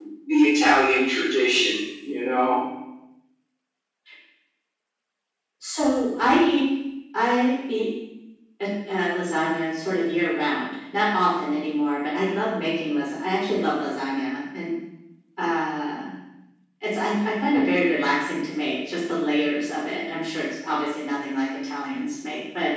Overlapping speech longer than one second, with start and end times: none

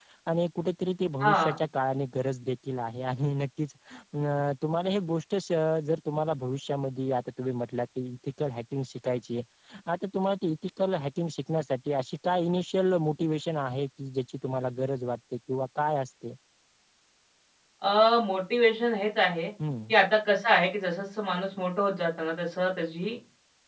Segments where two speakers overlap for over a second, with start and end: none

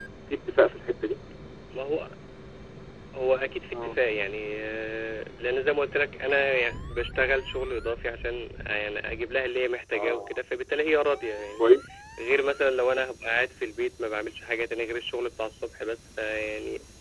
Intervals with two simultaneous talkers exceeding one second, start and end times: none

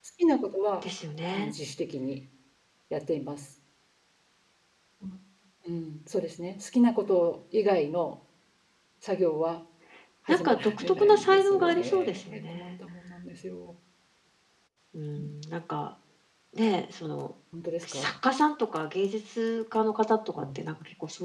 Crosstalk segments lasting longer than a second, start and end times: 10.3-12.7

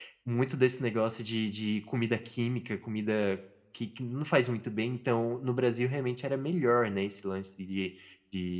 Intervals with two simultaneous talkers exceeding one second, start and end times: none

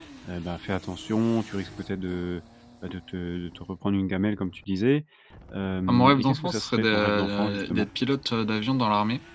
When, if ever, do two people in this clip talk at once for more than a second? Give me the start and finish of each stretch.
5.9-7.9

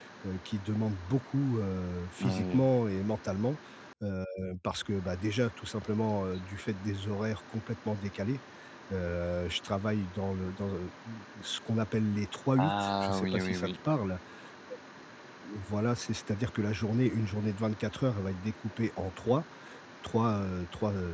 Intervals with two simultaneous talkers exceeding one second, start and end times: 12.6-13.8

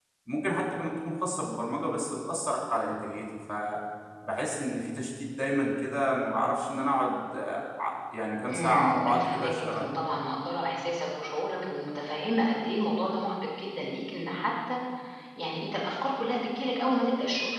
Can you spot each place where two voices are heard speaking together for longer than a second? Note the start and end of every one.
8.4-9.9

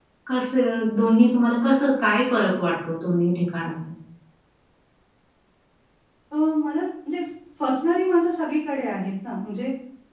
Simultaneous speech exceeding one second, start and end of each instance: none

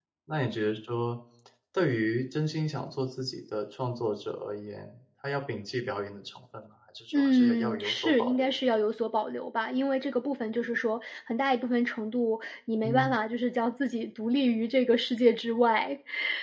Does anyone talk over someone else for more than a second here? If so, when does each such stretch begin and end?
7.1-8.5

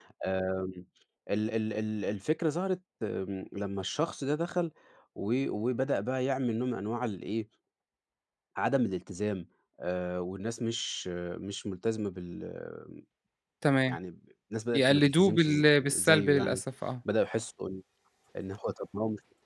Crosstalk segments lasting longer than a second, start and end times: 14.7-16.6

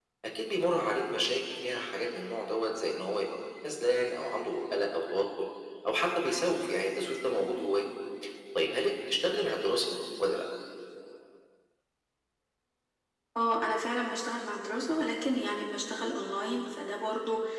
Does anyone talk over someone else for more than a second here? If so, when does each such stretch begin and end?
none

